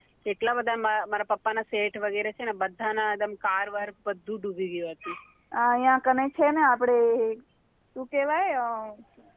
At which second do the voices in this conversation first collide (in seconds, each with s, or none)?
none